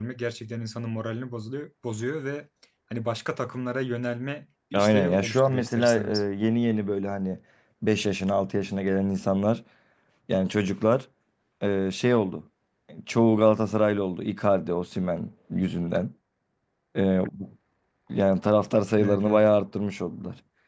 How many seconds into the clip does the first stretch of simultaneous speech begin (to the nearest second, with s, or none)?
5 s